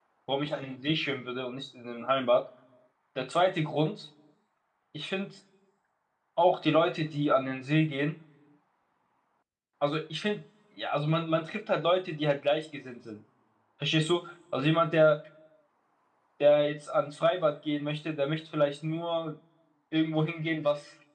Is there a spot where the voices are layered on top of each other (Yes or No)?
No